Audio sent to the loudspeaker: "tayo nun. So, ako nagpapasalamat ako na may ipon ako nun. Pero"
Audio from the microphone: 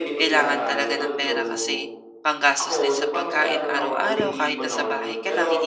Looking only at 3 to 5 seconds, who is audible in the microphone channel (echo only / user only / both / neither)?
both